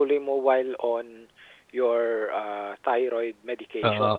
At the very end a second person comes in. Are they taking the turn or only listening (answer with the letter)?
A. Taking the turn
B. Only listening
A